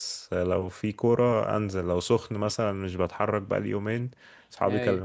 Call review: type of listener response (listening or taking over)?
listening